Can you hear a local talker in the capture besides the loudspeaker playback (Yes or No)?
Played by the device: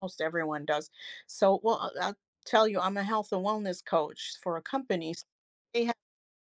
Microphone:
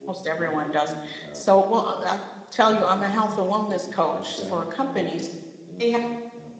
Yes